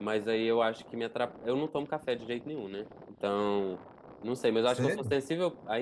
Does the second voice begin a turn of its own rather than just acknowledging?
No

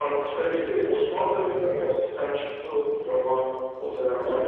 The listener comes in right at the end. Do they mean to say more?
Yes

